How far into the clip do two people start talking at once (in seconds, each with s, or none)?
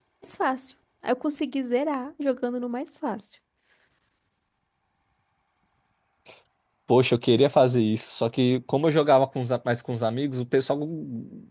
none